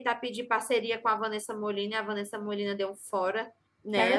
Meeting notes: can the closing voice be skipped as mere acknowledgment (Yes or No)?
Yes